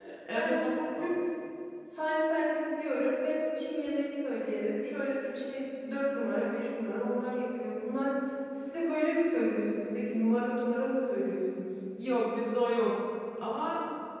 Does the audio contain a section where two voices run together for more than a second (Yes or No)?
No